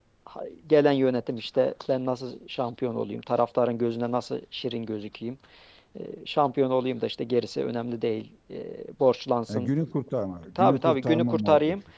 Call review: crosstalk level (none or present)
present